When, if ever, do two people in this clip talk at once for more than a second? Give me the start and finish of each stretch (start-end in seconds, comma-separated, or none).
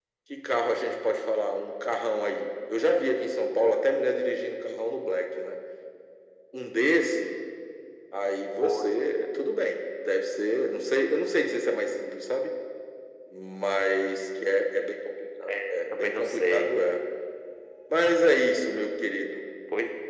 15.5-16.7